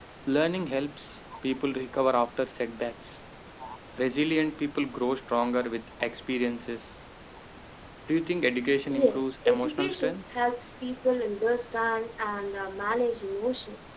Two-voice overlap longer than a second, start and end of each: 8.9-10.2

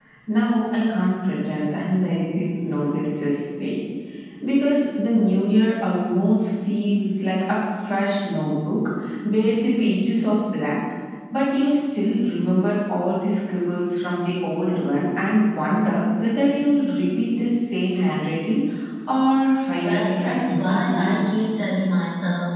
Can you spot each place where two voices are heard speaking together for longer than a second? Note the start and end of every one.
19.8-21.2

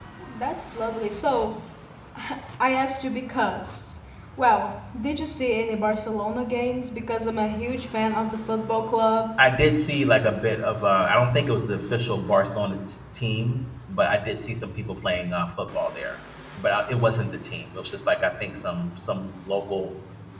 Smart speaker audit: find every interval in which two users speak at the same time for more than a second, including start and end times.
none

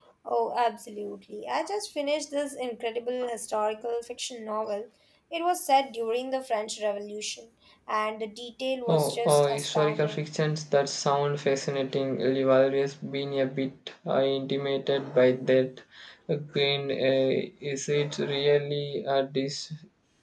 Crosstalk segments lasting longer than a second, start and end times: 8.9-10.2

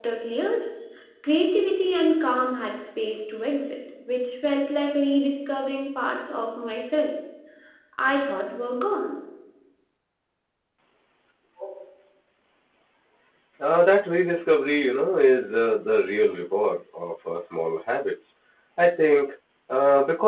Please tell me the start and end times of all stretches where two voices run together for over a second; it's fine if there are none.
none

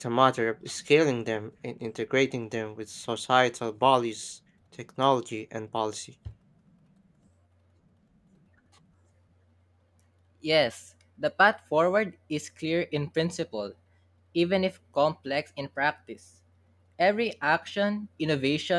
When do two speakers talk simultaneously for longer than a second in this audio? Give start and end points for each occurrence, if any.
none

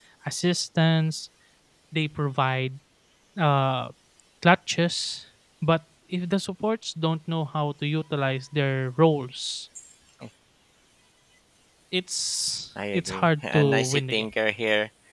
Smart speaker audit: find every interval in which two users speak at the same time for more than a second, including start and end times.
12.9-14.2

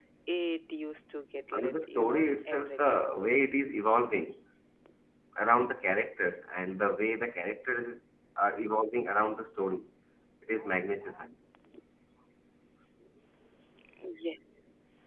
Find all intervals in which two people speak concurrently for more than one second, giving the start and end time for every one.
1.5-3.0

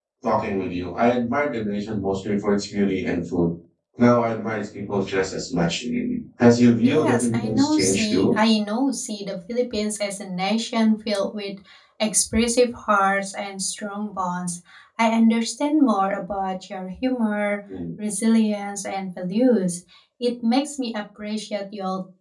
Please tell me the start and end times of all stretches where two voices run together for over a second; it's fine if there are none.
6.8-8.4

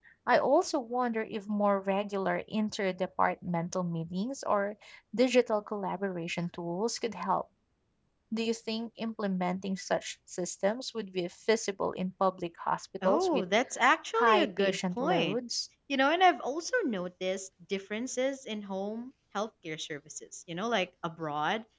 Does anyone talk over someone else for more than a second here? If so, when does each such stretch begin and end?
14.2-15.4

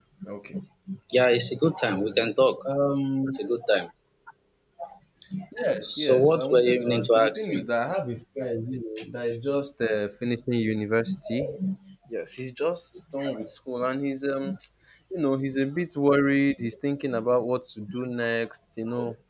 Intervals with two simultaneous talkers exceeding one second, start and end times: 5.8-7.7

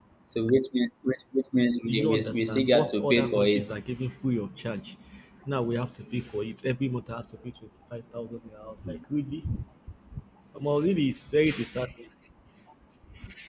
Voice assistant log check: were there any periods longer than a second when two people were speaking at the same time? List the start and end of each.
1.9-3.7

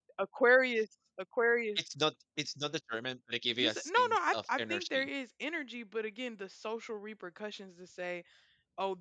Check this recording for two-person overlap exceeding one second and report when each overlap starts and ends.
3.6-5.1

